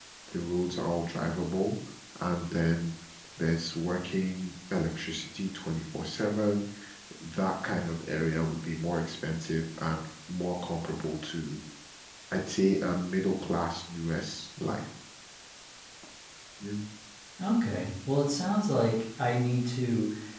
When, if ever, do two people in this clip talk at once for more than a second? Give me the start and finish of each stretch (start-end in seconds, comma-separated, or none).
none